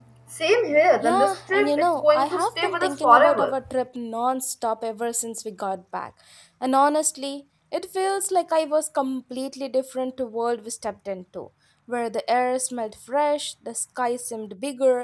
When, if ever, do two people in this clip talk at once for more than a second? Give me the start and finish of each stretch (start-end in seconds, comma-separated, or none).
1.0-3.5